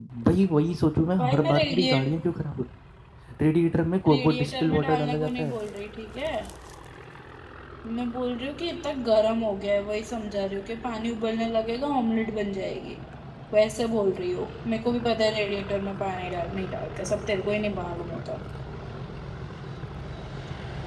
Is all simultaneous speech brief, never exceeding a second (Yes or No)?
No